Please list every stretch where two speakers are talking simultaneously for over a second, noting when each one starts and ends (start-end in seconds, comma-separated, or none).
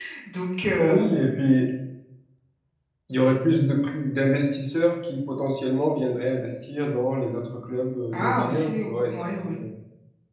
8.1-9.6